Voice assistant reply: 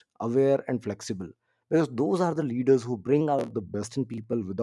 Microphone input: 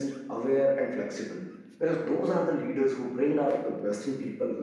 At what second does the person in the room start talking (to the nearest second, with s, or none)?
none